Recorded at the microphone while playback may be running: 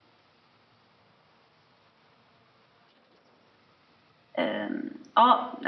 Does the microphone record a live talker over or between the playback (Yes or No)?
Yes